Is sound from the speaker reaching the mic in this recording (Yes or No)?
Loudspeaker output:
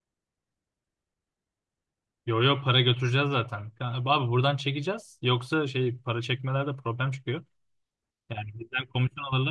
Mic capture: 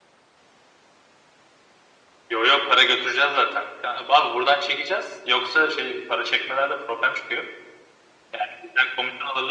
Yes